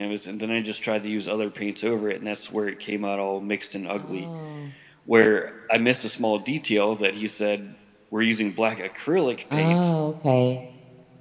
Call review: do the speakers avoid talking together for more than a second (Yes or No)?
Yes